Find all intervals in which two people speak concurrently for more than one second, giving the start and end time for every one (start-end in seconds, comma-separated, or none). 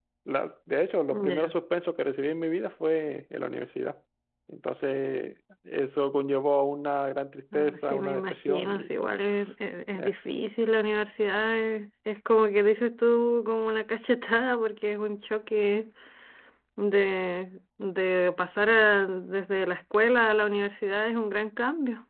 7.5-8.9